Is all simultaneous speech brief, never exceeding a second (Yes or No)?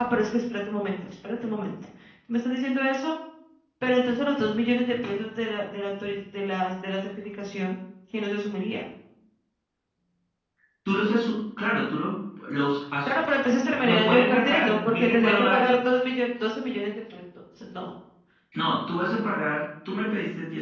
No